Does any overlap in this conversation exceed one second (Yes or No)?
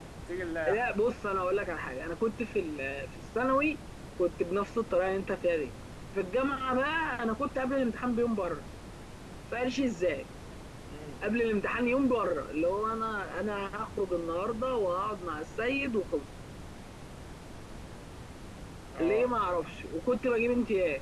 No